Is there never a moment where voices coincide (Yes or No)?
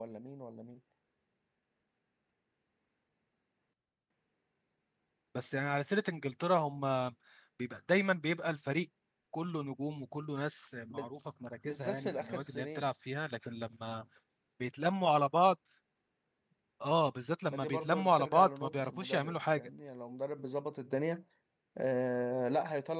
No